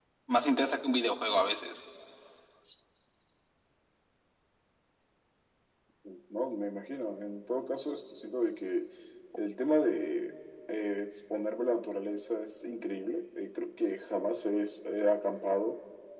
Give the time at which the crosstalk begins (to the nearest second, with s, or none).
none